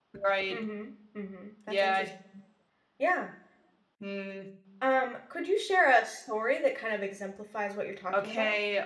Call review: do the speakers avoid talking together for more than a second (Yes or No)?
Yes